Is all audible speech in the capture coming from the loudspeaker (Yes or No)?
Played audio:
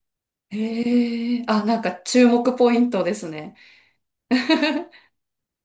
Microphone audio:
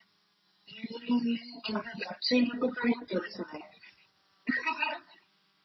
Yes